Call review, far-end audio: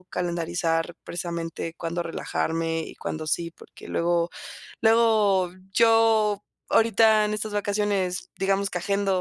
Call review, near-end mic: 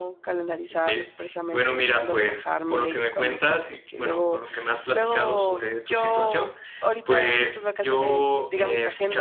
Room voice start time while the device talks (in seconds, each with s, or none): 0.7 s